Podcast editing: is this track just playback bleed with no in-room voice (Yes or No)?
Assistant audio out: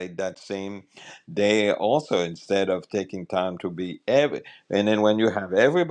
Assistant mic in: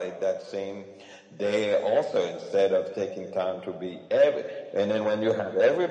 Yes